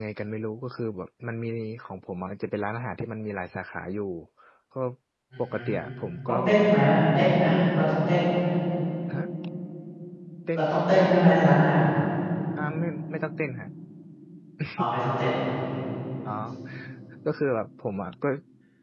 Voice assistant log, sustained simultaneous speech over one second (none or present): none